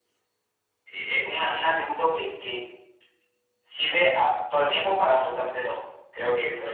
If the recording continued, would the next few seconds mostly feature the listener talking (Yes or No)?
No